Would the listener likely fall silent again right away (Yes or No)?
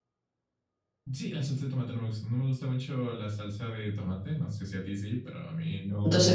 No